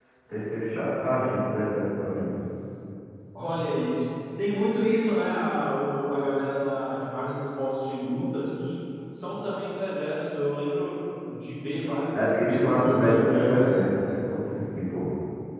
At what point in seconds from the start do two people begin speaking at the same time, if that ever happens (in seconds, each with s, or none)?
12.1 s